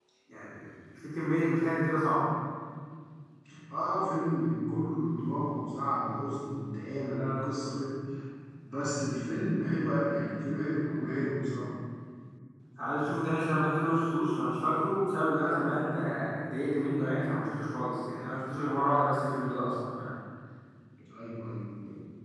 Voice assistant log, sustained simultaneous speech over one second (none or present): none